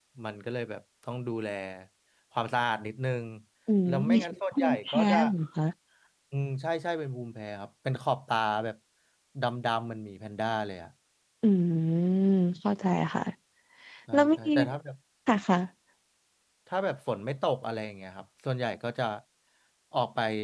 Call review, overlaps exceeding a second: present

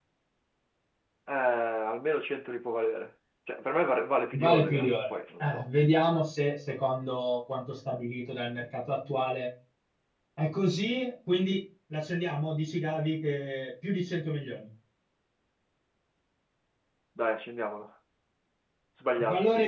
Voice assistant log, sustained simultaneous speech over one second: present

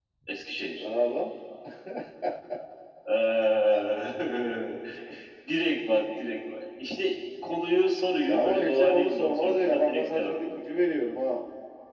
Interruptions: present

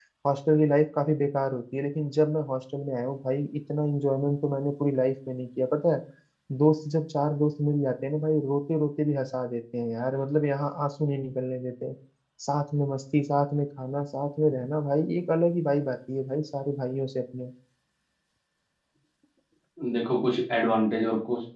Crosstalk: none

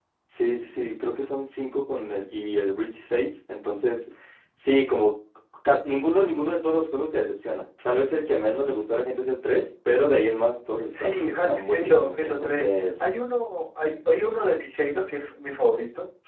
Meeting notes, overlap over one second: present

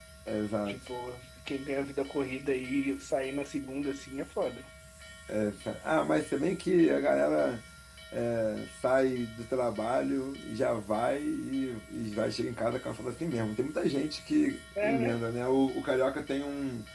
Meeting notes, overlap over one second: none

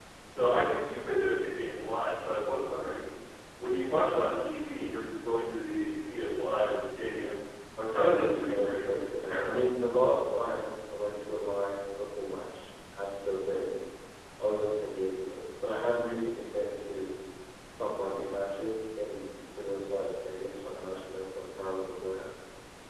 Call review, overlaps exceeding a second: present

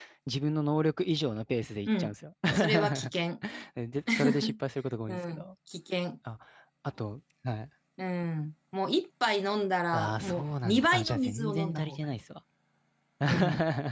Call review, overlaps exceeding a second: present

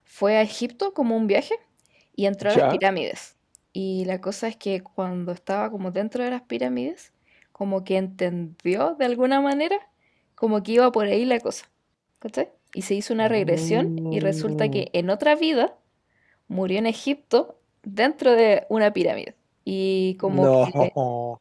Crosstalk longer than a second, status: present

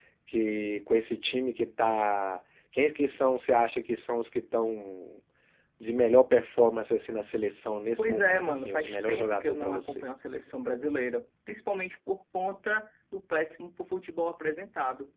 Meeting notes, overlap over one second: present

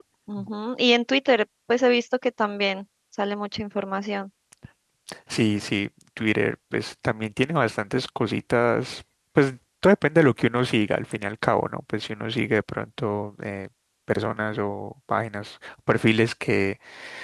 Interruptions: none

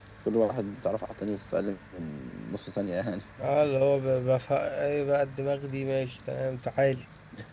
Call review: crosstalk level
none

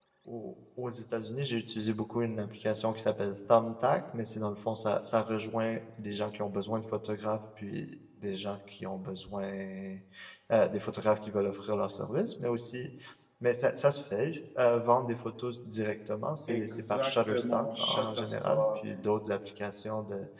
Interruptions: present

